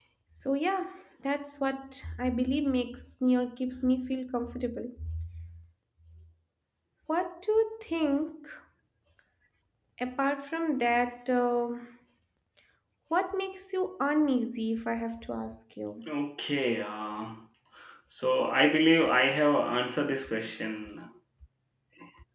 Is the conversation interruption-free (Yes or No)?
Yes